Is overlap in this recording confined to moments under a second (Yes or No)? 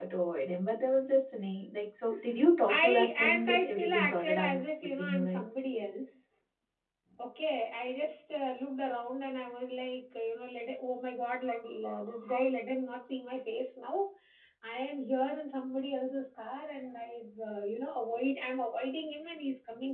No